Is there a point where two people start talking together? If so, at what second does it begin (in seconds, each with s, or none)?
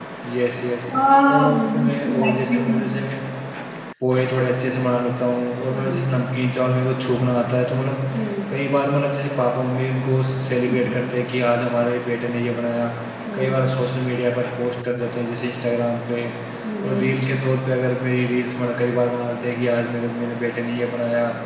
1.3 s